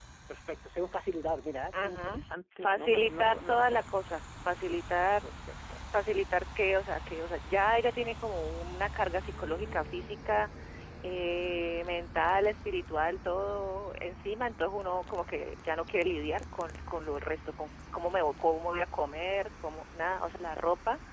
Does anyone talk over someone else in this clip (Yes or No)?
Yes